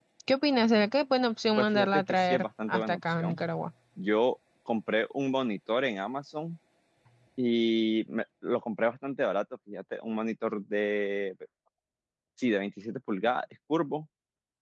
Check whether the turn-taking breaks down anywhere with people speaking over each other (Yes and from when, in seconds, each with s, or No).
Yes, from 1.6 s